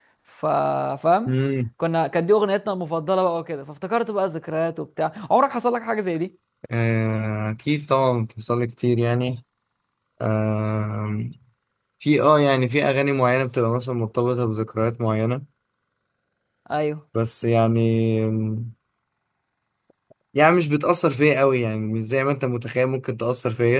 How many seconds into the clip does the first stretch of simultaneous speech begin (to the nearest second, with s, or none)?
none